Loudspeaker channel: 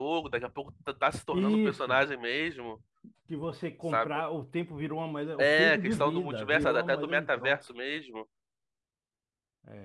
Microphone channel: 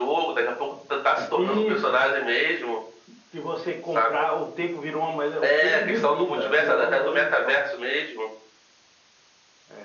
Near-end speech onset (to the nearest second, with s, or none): none